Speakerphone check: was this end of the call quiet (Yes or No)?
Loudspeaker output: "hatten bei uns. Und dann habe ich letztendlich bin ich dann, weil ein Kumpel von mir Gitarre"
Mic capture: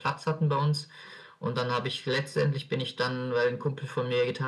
Yes